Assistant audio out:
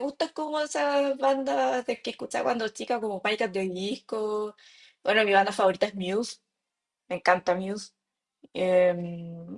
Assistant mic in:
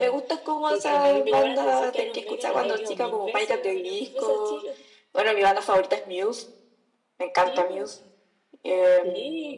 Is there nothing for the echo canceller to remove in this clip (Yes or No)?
No